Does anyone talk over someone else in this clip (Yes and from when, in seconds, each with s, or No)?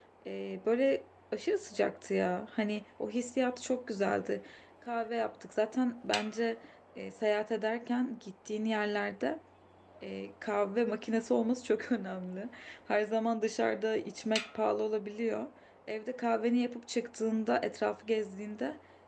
No